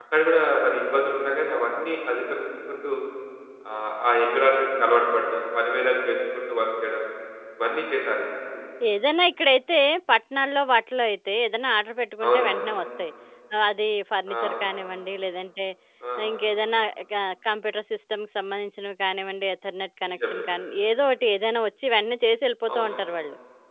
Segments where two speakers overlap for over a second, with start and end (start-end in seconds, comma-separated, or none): none